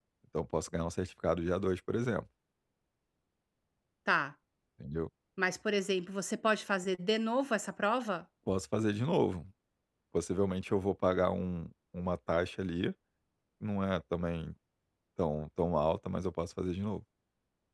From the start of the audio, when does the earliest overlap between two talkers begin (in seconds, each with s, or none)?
none